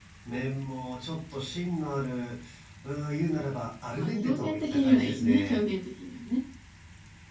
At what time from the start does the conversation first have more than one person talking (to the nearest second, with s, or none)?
4 s